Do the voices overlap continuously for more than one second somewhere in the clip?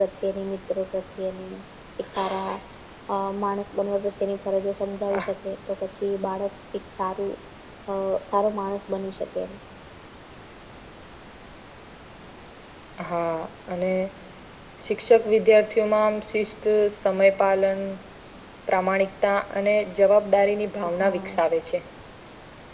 No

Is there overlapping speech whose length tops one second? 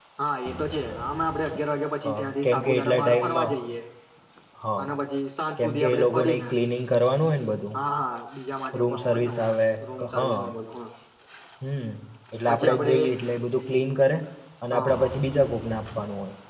Yes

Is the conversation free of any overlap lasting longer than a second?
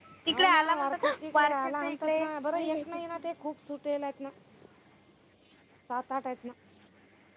No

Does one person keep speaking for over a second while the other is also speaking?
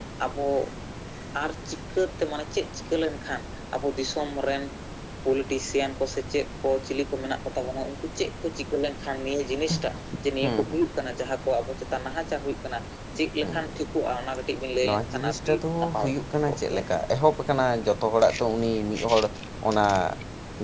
Yes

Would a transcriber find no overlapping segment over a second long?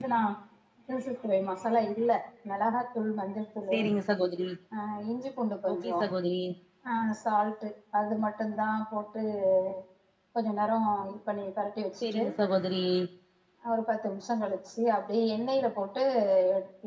Yes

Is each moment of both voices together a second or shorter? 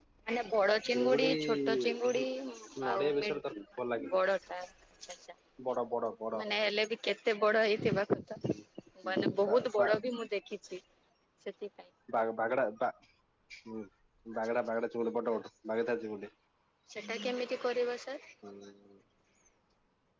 No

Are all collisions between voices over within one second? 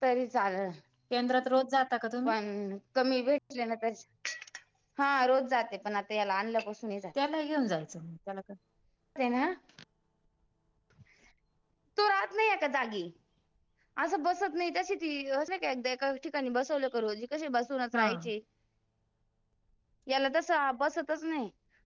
Yes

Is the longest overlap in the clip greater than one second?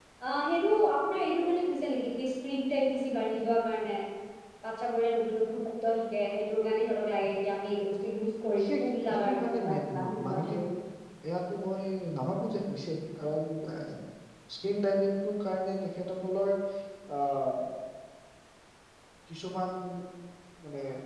Yes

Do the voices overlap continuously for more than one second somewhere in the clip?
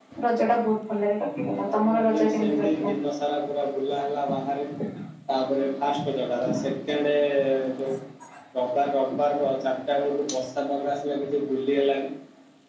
Yes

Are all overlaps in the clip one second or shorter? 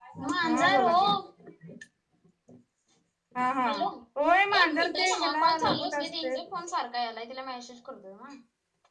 No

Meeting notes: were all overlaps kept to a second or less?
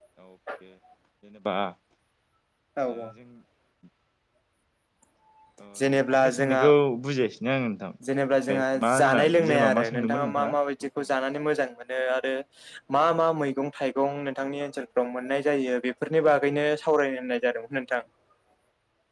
No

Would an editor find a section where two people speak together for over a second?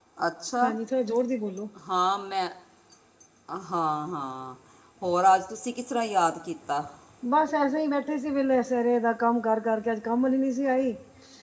No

